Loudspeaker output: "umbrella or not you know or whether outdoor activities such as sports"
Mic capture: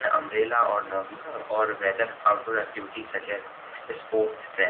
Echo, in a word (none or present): present